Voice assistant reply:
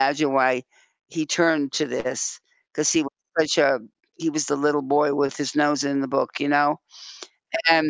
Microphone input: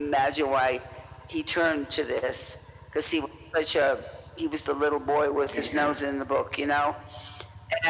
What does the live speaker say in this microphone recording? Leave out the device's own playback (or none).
Yeah.